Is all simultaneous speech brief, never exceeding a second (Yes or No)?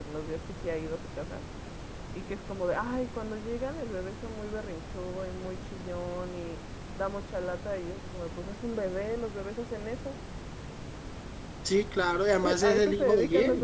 No